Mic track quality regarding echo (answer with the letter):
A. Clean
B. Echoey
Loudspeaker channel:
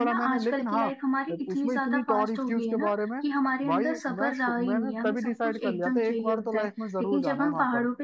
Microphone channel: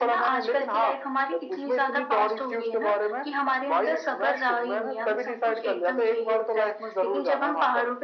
B